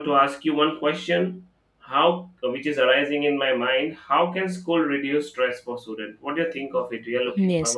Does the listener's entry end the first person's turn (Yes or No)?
Yes